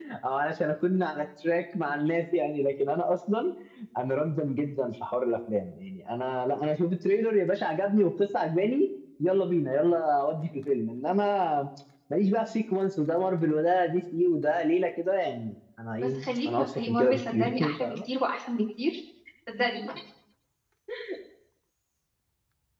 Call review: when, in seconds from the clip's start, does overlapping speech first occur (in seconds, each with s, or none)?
16.0 s